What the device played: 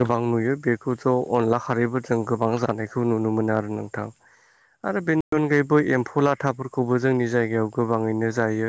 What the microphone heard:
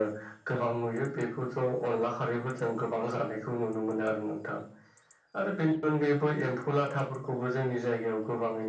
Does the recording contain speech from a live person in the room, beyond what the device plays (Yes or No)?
No